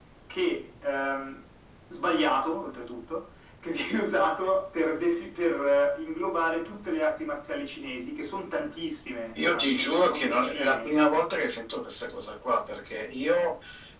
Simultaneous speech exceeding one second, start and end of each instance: 9.4-11.3

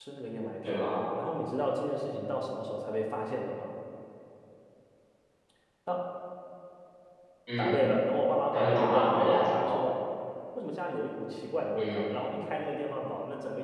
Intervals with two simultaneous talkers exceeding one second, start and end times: 8.5-9.8

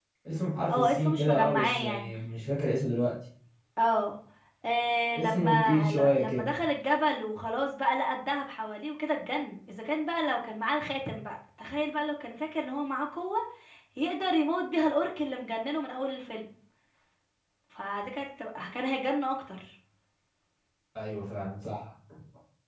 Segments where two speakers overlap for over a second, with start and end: 0.7-2.1, 5.2-6.5

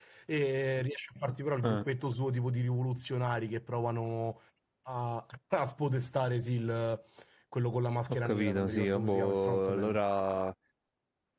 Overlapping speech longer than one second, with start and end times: 8.2-10.0

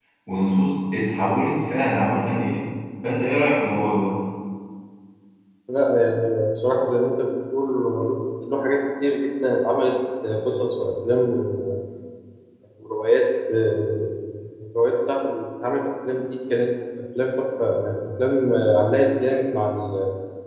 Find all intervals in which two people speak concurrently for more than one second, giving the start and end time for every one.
none

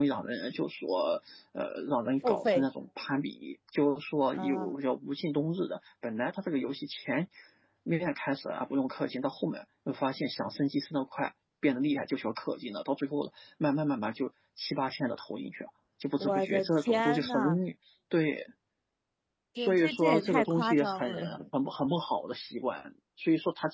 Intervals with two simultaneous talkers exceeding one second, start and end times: 16.2-17.6, 19.6-21.1

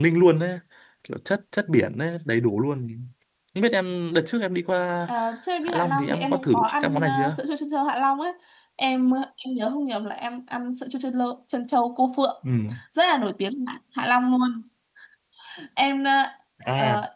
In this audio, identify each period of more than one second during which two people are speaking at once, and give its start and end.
5.6-7.4

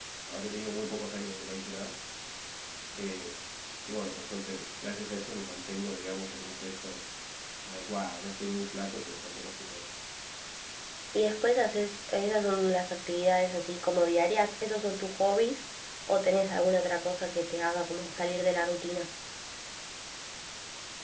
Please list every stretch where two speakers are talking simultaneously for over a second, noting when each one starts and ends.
none

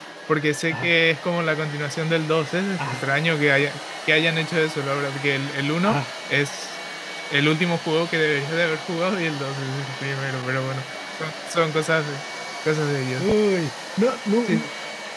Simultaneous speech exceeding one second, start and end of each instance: none

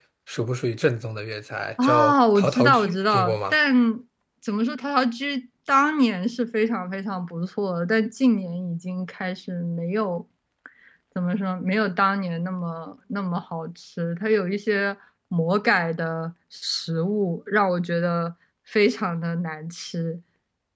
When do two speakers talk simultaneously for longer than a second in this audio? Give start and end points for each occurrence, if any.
1.8-3.6

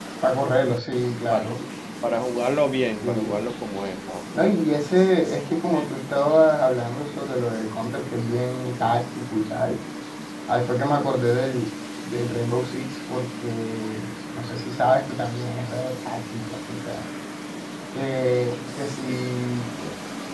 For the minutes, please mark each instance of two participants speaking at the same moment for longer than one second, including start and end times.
none

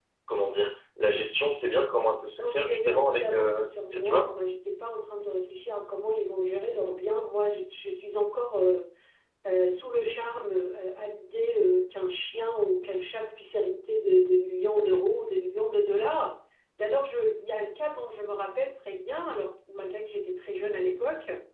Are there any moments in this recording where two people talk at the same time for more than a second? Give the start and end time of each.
2.4-4.4

